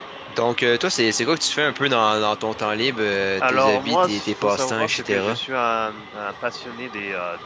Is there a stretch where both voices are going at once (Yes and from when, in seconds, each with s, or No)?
Yes, from 3.4 s